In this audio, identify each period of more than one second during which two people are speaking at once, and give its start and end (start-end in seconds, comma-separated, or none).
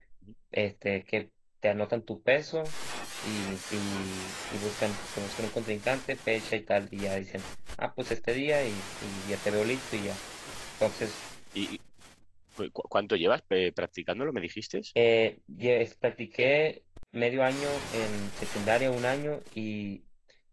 none